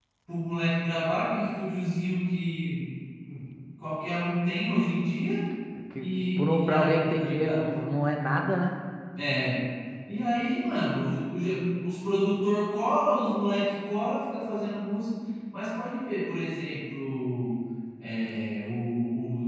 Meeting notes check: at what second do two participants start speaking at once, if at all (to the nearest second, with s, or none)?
6 s